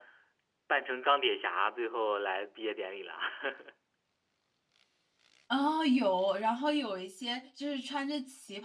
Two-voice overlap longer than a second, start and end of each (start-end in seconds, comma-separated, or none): none